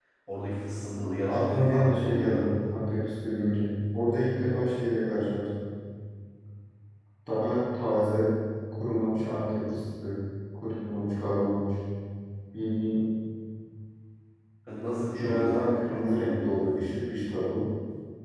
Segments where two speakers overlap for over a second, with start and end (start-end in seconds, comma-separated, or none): 1.2-2.4, 15.2-16.9